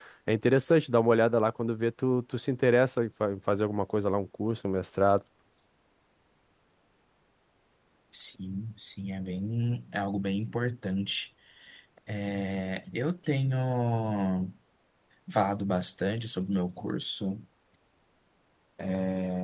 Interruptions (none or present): none